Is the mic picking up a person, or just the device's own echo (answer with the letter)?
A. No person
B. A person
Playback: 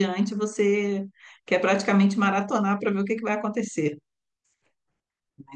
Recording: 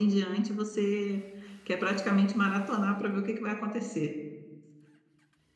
A